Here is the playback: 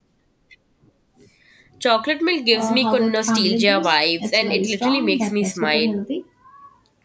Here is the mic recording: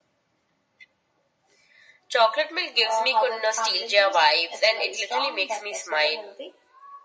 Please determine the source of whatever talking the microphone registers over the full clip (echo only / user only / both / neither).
echo only